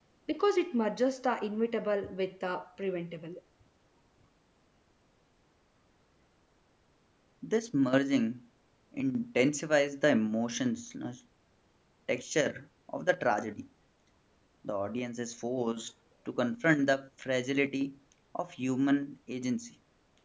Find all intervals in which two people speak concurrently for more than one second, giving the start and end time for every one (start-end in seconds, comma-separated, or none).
none